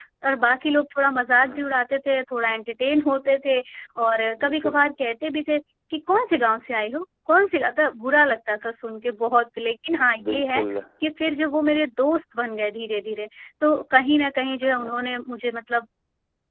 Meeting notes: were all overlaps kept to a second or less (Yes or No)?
Yes